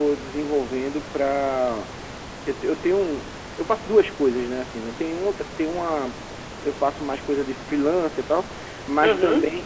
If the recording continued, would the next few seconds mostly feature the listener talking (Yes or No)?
No